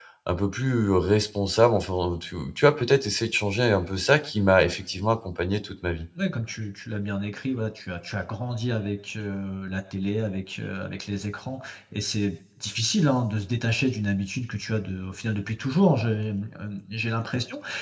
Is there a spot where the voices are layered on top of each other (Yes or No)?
No